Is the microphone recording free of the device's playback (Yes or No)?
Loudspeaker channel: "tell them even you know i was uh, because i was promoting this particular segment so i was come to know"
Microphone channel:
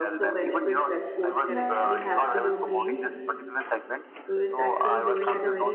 No